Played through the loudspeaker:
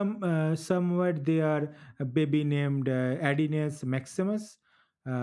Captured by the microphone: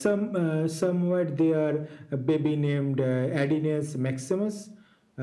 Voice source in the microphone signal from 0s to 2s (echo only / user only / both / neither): echo only